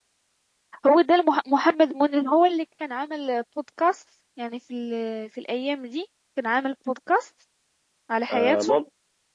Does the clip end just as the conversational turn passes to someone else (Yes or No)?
Yes